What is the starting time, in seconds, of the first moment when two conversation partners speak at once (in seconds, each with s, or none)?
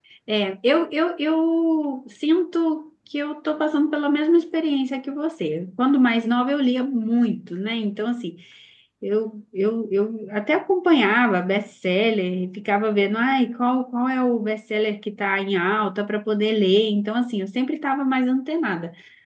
none